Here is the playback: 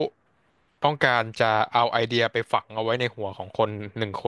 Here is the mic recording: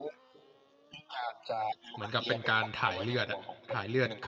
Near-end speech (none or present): present